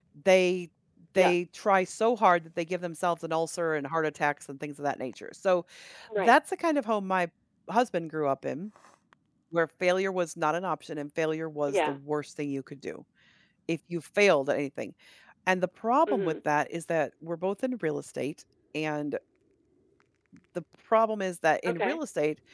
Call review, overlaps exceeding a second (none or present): none